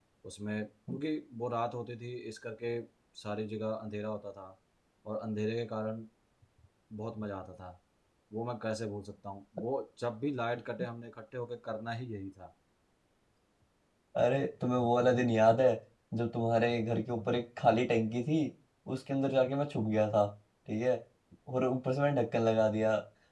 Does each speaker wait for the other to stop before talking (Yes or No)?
Yes